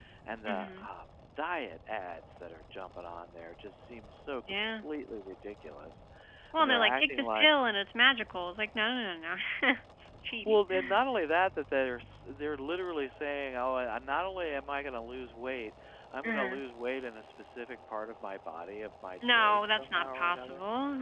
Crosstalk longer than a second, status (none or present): present